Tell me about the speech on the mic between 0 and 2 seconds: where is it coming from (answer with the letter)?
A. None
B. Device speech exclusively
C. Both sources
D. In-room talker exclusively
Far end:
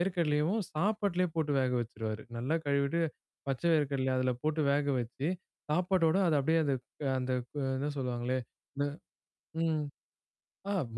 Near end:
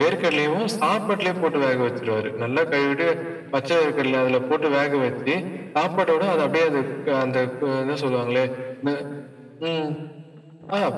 B